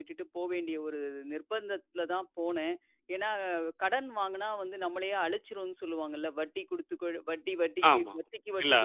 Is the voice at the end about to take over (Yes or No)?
Yes